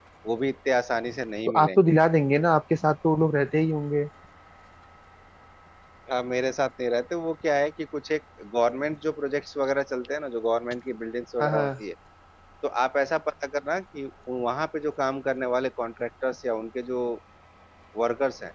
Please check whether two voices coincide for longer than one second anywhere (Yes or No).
No